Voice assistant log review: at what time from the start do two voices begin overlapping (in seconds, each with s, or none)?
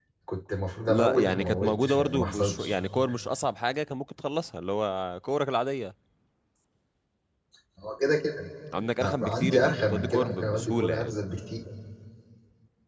0.9 s